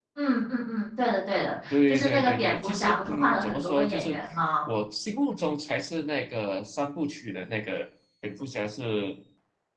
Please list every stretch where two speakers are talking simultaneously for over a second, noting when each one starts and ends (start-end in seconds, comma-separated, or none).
1.7-4.1